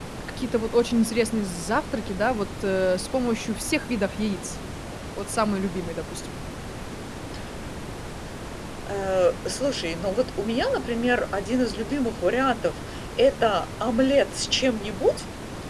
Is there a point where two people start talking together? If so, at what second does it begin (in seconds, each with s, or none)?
none